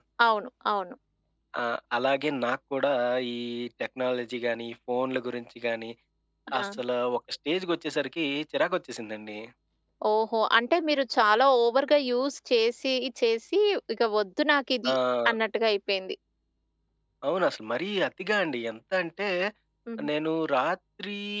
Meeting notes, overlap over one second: none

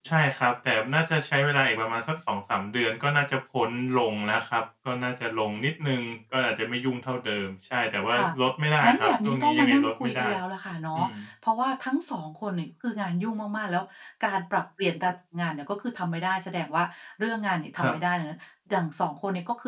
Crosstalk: present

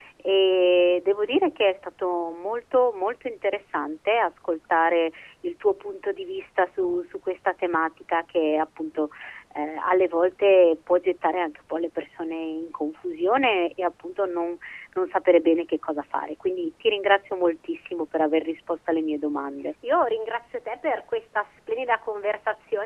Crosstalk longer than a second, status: none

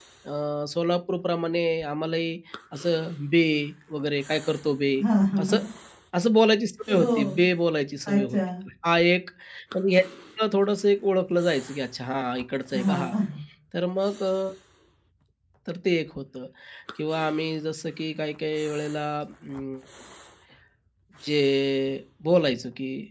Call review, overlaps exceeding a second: none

